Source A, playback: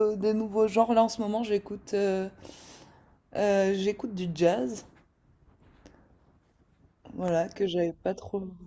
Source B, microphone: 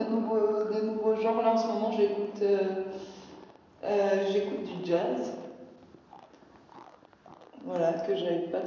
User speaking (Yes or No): No